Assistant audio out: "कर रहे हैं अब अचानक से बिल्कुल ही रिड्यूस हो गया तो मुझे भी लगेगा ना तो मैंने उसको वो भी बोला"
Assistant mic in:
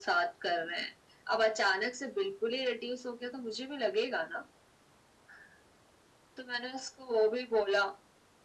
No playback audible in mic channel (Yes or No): No